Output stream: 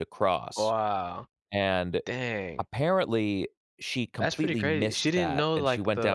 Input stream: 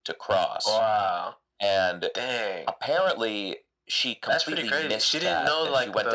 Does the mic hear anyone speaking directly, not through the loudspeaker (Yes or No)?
No